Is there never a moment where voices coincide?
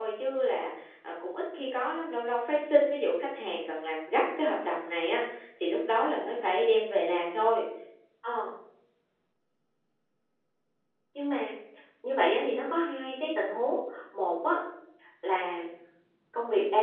Yes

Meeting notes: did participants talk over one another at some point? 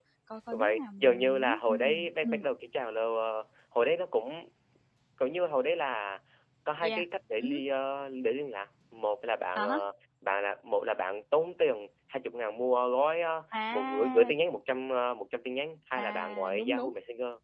Yes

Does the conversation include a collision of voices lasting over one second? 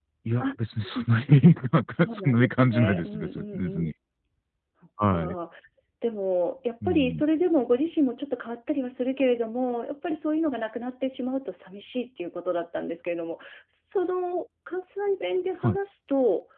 Yes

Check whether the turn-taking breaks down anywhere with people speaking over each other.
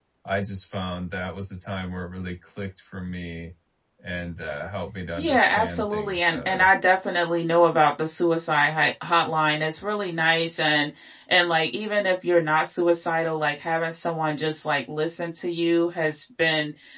Yes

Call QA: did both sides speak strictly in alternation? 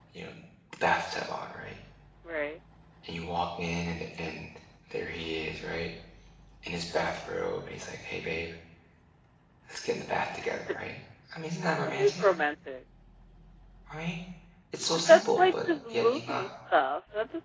No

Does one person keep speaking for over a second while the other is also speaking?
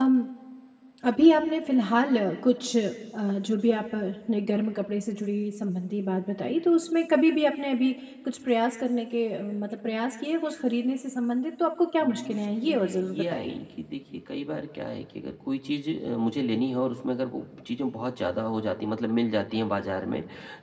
Yes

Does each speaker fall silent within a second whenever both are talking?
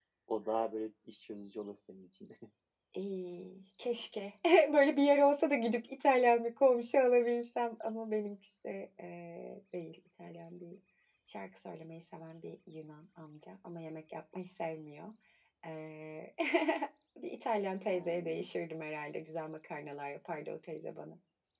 Yes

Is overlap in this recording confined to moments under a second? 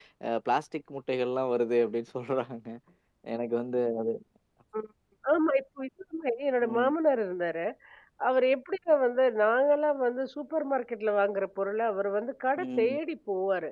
Yes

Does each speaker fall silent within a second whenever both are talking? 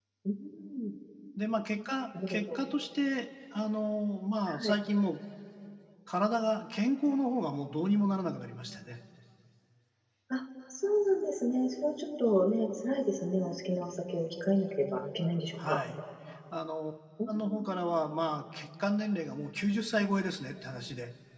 Yes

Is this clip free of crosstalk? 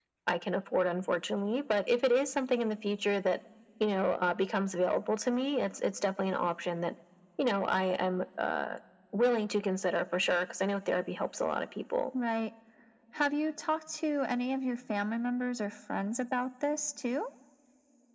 Yes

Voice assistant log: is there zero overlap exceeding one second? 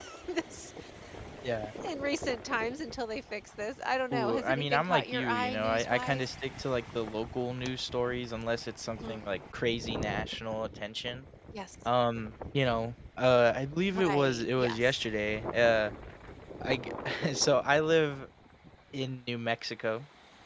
No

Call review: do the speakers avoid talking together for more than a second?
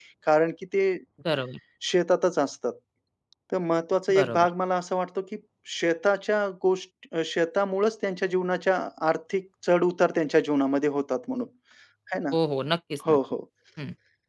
Yes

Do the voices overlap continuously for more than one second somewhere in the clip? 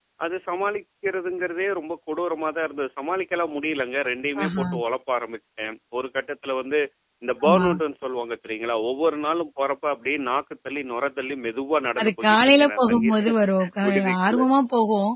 Yes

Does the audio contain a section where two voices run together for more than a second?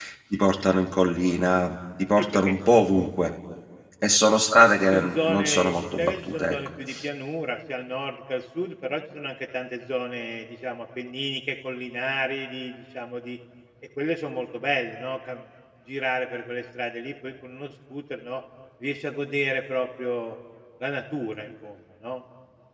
Yes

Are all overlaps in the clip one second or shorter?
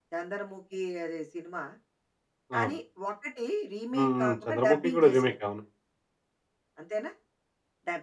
No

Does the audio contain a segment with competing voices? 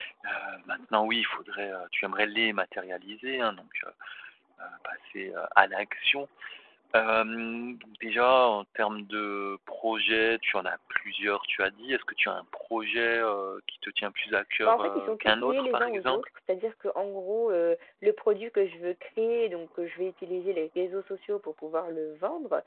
Yes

